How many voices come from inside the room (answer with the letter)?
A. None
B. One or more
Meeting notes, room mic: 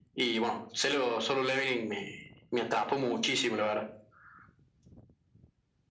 A